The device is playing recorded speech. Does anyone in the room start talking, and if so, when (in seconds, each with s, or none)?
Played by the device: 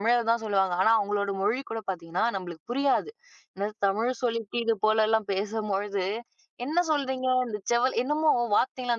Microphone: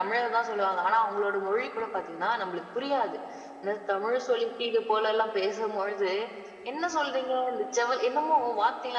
none